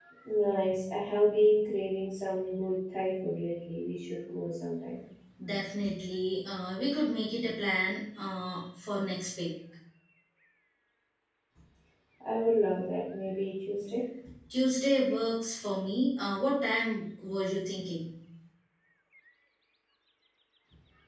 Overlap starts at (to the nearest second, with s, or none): none